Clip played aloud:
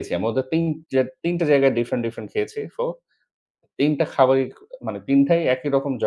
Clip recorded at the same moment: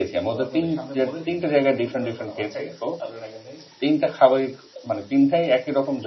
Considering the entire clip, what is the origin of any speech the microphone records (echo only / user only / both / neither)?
both